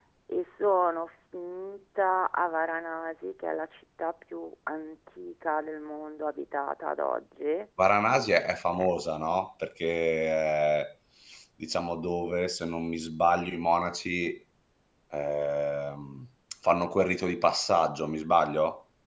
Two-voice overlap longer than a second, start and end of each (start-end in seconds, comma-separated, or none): none